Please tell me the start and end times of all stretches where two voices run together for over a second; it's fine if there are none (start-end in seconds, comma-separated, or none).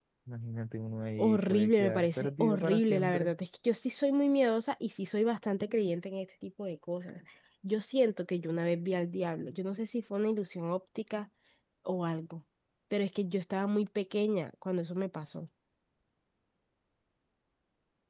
1.2-3.3